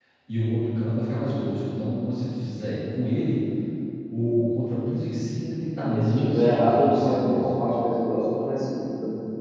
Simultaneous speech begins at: 5.8 s

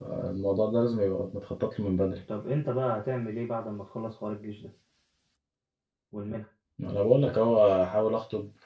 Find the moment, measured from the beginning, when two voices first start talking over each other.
none

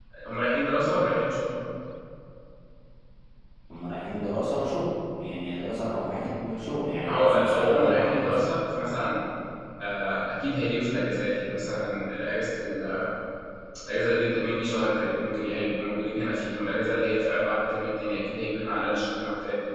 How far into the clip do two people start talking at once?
7.0 s

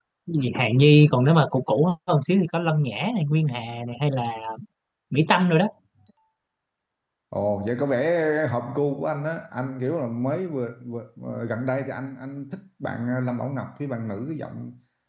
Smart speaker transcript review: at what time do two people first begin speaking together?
none

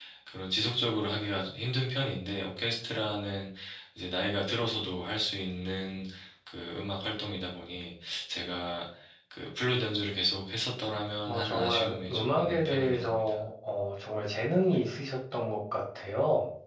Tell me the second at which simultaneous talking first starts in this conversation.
11.3 s

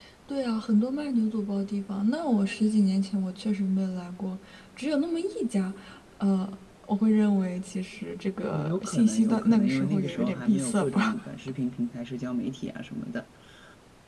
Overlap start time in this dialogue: 8.5 s

